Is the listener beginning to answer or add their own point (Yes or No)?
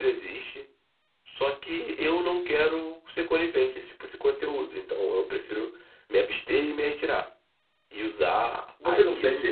Yes